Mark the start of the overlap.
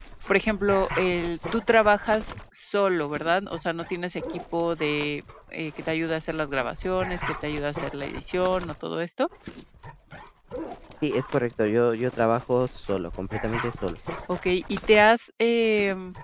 none

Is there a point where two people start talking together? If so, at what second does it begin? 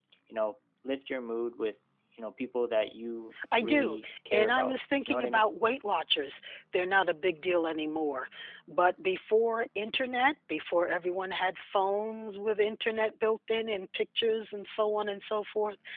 3.4 s

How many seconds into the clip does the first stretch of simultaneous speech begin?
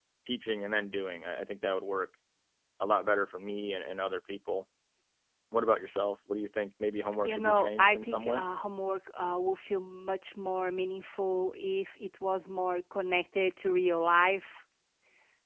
7.2 s

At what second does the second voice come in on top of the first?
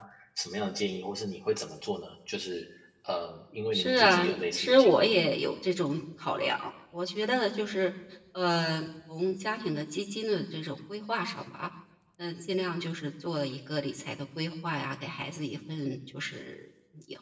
3.7 s

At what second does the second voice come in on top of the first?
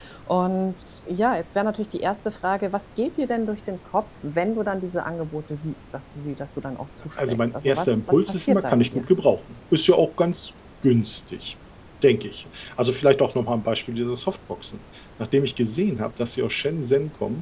7.2 s

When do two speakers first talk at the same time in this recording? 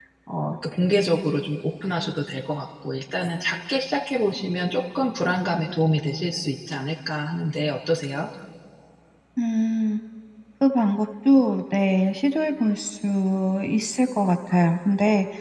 none

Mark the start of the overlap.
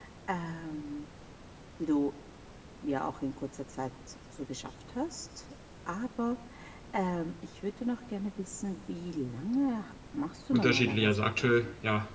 10.5 s

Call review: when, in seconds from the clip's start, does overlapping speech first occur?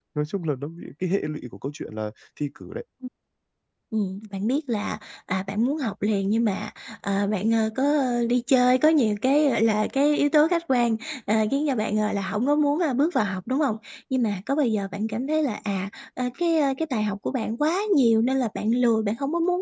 none

